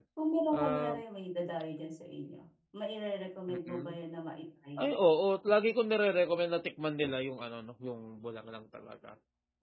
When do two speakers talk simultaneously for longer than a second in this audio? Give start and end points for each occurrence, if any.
none

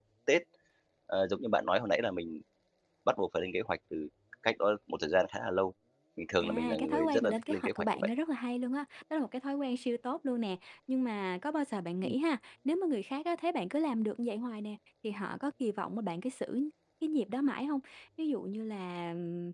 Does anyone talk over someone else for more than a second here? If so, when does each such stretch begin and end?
6.4-8.1

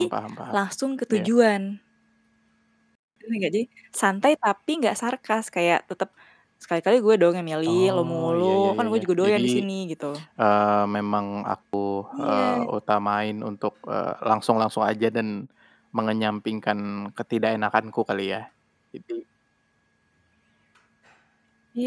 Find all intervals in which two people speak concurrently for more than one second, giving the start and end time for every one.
7.6-9.4

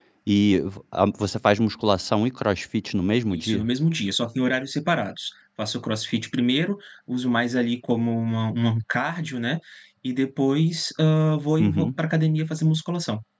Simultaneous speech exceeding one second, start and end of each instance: none

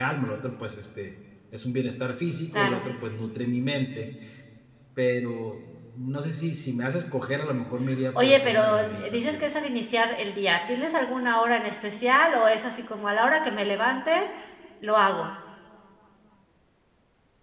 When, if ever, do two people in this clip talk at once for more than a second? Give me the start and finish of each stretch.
8.2-9.4

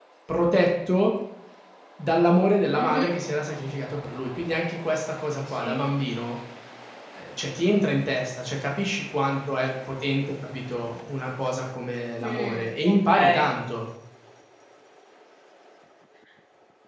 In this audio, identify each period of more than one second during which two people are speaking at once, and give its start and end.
12.2-13.5

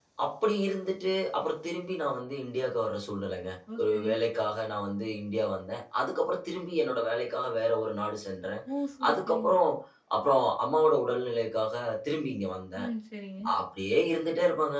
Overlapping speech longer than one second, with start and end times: none

